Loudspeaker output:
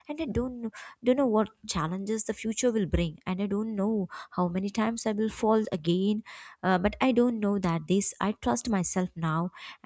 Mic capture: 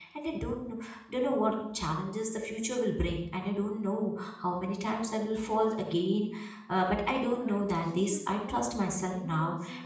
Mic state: both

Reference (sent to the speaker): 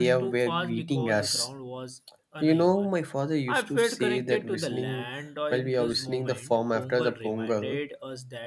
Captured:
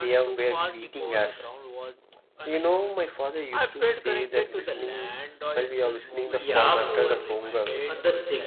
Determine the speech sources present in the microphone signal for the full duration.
both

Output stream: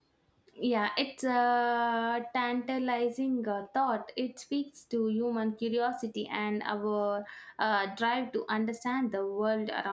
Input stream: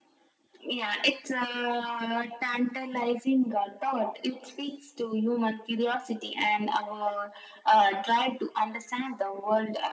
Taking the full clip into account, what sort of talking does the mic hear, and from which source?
echo only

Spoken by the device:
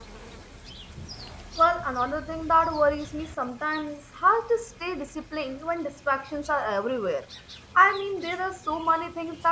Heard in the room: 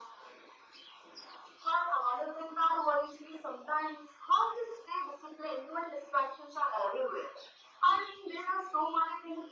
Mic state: echo only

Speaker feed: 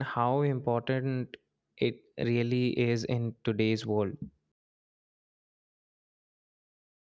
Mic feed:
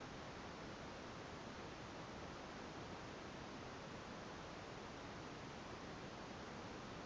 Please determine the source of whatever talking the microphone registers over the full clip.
neither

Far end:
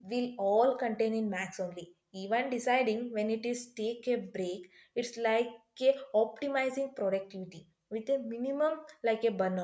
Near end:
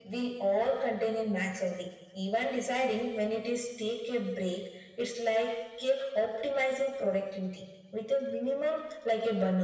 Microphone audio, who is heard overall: echo only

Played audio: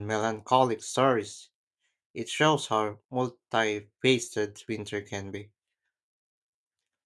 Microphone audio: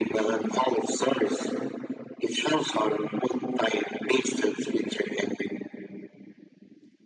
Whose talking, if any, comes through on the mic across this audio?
echo only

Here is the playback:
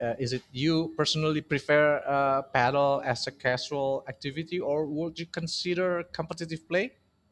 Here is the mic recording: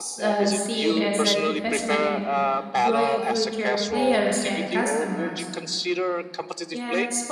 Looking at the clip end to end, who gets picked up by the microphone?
both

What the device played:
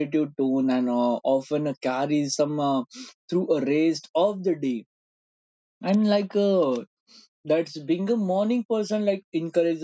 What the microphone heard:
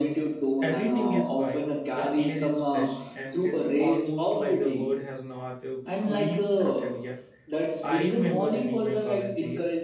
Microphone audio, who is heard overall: both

